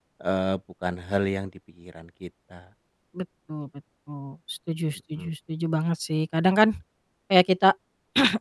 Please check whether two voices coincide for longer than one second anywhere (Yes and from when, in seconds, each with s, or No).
No